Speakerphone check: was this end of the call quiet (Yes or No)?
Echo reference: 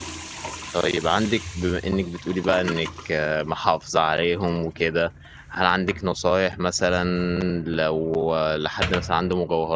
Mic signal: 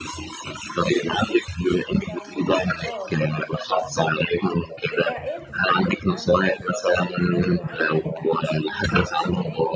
No